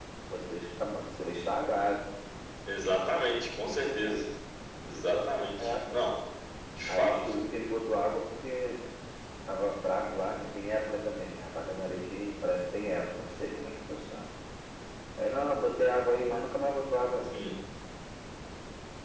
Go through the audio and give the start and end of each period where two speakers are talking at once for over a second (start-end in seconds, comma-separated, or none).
none